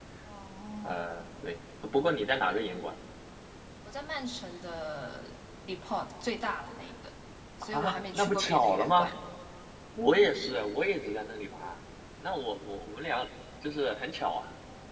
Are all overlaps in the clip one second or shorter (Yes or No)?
No